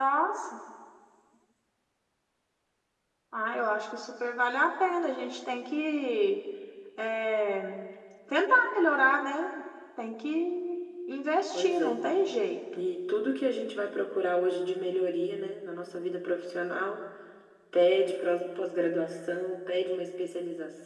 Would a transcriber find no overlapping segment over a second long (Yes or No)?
Yes